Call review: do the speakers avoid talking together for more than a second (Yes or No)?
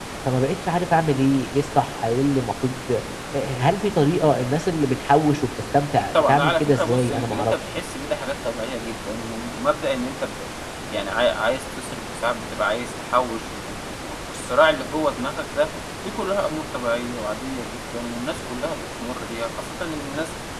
No